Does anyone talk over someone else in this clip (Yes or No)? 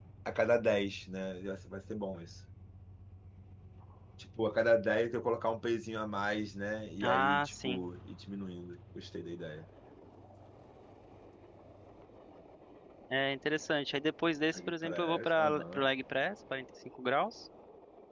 Yes